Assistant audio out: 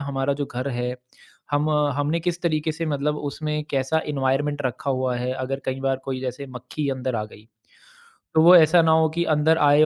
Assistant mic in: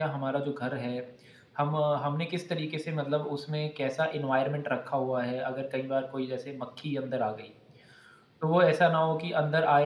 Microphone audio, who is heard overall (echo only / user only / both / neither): echo only